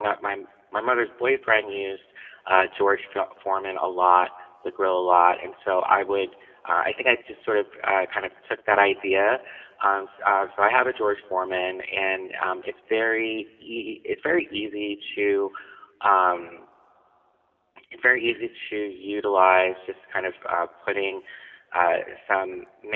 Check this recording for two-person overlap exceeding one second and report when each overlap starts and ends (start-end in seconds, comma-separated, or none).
none